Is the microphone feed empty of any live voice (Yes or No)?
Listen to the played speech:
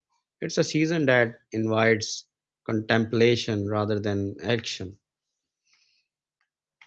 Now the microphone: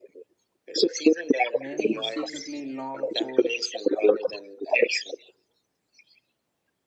No